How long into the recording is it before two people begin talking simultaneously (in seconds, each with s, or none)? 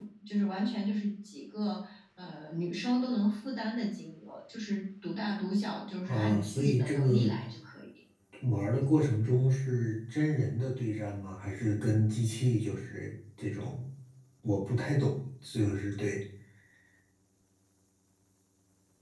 6.1 s